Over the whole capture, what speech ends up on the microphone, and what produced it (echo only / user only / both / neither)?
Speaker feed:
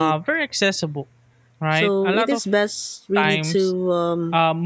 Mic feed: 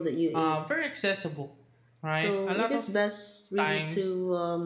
echo only